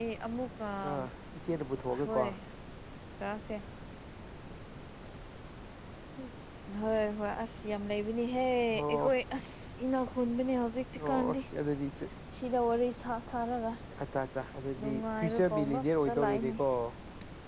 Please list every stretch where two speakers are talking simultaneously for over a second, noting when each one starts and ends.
14.8-16.5

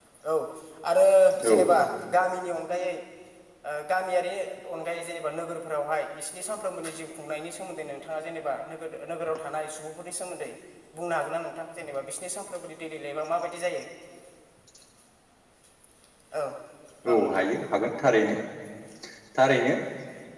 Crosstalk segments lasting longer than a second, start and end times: none

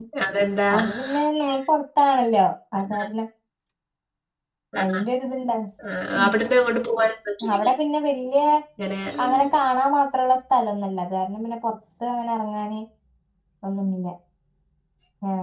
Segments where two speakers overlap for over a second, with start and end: none

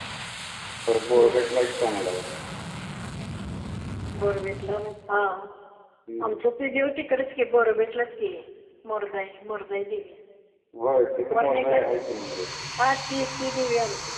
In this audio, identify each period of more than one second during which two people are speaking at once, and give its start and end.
none

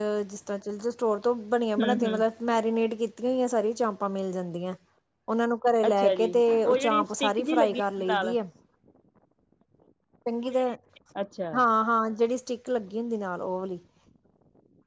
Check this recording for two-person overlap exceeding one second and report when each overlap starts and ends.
6.6-8.4

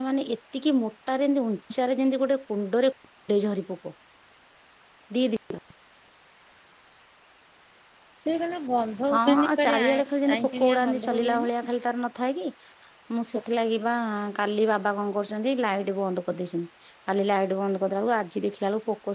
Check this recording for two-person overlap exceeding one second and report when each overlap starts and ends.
9.1-11.5

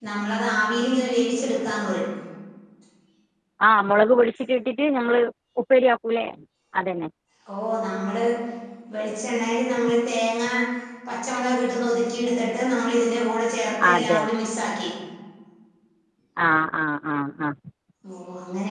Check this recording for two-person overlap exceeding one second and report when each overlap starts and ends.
none

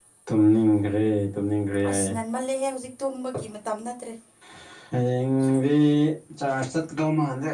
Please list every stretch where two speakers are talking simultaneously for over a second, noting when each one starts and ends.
none

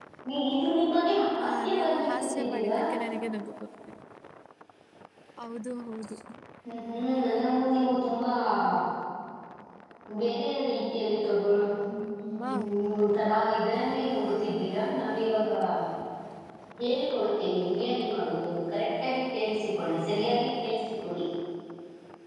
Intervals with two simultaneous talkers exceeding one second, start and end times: 1.4-2.8

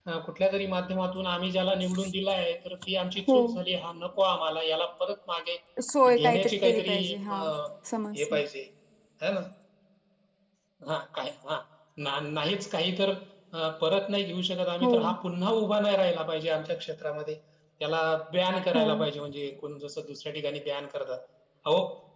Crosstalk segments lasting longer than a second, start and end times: 6.1-7.3

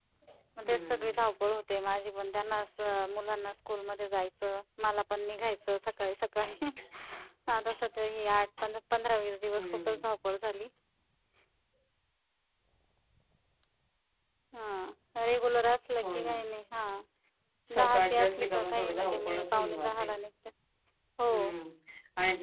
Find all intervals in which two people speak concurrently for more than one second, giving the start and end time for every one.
17.8-20.0

